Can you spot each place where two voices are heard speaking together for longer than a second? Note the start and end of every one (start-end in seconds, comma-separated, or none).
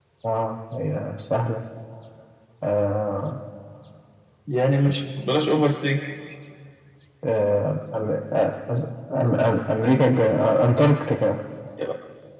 none